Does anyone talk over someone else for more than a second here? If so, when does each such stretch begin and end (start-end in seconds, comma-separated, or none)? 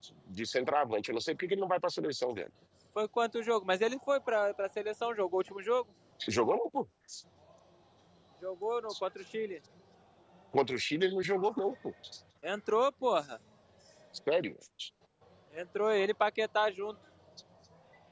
none